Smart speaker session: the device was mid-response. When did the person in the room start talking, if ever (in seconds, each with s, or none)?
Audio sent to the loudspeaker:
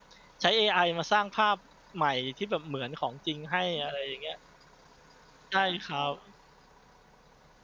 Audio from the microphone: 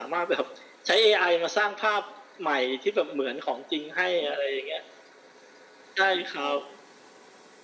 none